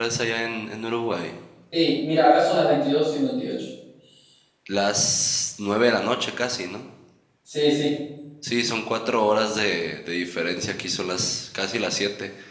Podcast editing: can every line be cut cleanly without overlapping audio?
Yes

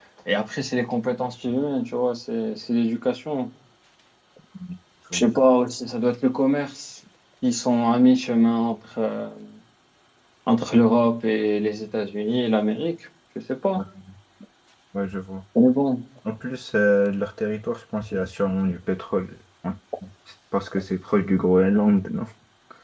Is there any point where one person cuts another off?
No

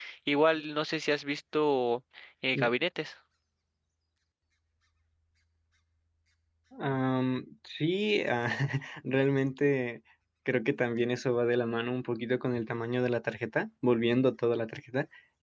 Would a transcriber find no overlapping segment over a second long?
Yes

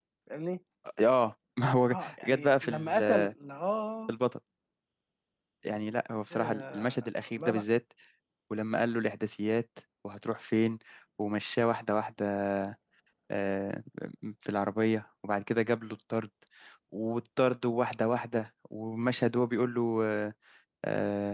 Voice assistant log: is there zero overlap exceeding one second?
No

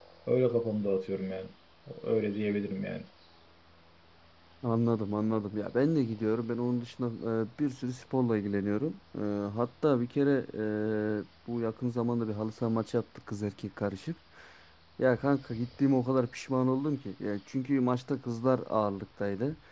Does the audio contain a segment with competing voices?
No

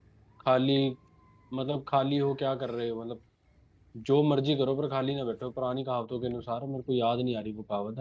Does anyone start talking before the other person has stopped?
No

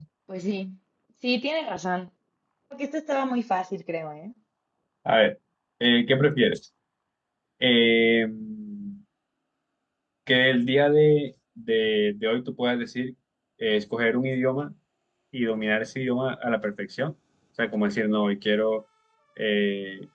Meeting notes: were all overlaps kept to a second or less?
Yes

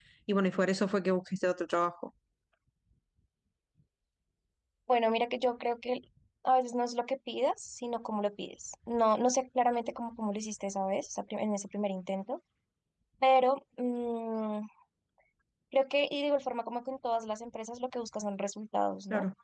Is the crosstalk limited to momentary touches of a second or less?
Yes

